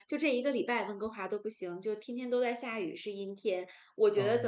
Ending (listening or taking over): listening